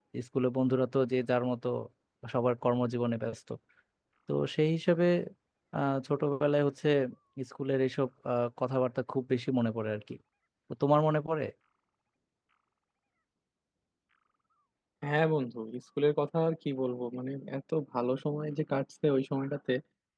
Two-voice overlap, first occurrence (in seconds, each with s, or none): none